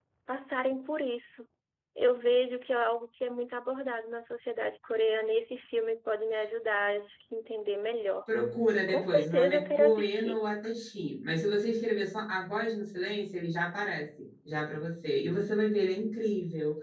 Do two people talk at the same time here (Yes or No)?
Yes